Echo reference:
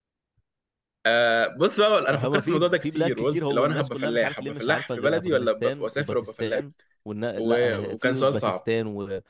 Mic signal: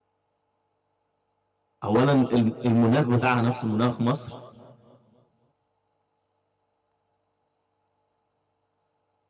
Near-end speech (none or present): present